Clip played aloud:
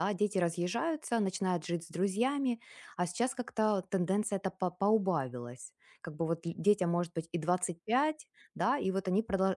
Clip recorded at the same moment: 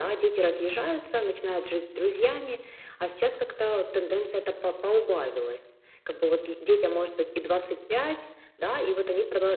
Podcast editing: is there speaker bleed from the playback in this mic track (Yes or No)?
Yes